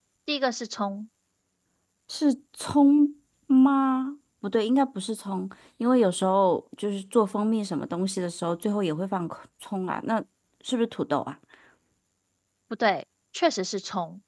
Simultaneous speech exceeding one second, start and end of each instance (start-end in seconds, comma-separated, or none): none